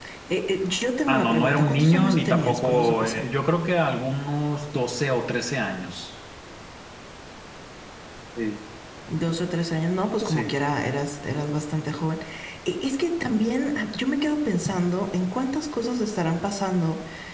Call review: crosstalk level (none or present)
present